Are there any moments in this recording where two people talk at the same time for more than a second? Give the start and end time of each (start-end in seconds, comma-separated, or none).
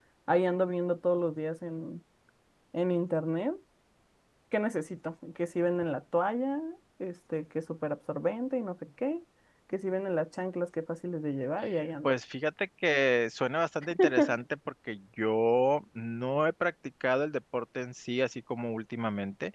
none